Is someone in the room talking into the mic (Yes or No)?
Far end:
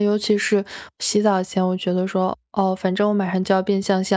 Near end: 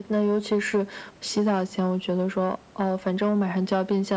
No